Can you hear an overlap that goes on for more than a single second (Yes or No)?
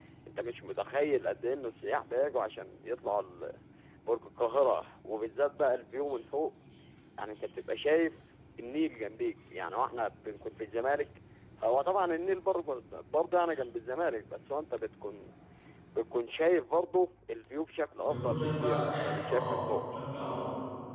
Yes